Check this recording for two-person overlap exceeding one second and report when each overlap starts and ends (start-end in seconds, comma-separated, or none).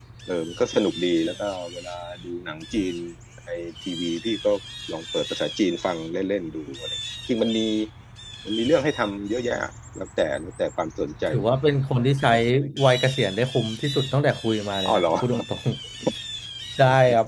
none